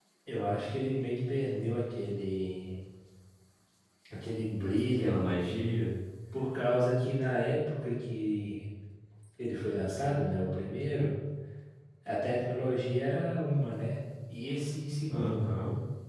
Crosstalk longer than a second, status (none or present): none